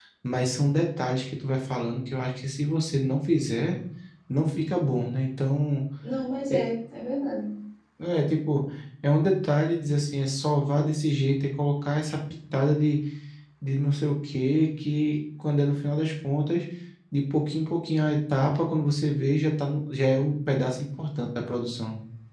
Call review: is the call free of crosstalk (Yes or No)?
Yes